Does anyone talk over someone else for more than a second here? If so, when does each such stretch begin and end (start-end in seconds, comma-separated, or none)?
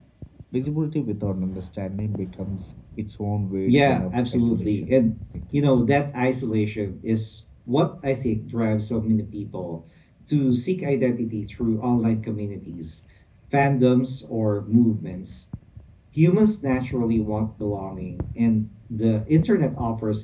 3.6-4.9